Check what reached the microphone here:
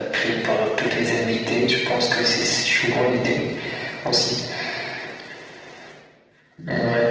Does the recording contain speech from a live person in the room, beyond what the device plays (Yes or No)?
No